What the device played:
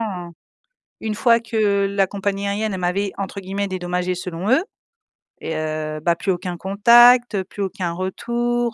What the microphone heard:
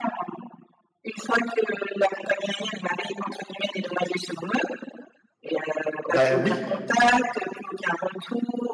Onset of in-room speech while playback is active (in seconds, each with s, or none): 6.1 s